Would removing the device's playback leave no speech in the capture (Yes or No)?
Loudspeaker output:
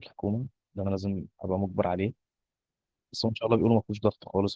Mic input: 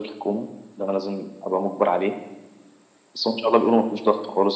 Yes